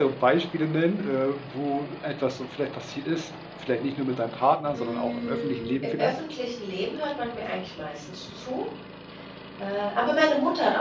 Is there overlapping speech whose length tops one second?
Yes, from 4.7 s

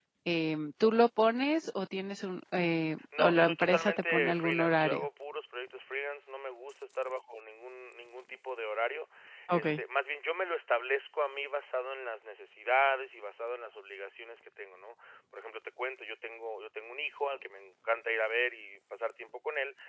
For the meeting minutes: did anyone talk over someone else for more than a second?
Yes, from 3.2 s

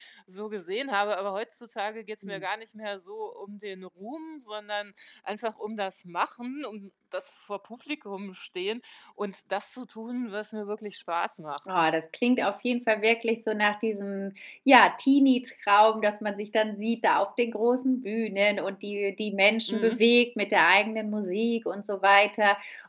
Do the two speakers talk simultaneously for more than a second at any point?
No

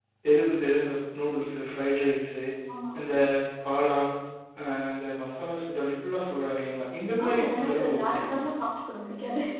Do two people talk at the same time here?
Yes, from 7.2 s

